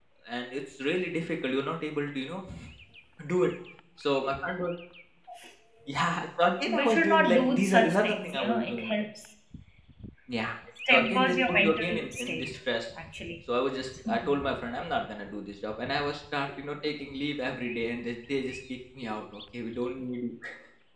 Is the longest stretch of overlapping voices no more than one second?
No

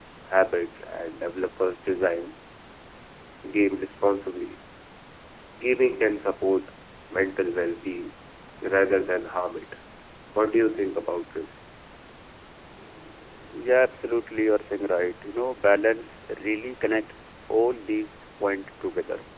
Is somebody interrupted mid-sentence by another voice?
No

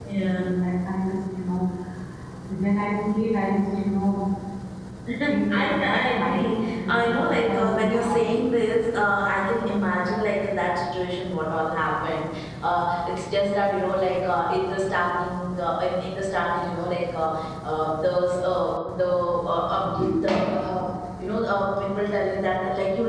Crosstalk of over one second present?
Yes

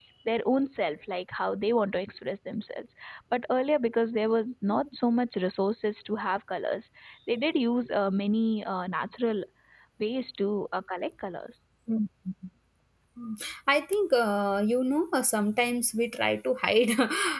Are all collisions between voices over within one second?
Yes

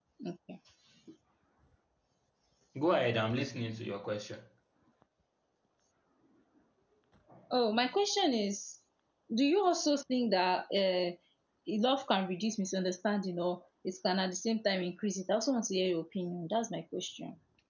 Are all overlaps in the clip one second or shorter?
Yes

